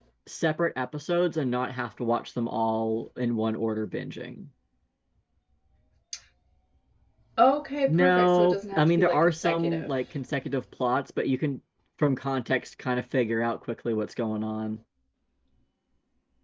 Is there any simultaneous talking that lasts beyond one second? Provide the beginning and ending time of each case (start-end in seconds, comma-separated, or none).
7.9-9.9